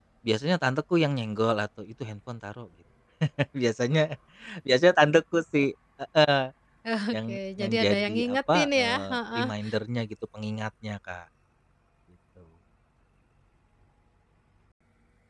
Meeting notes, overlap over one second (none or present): present